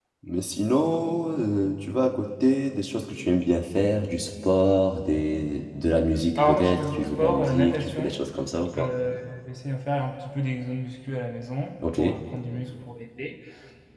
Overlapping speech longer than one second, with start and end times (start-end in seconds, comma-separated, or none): 6.4-8.1